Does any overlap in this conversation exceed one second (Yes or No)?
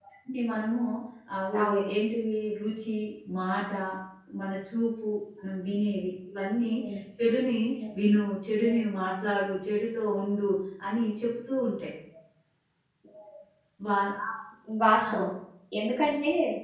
No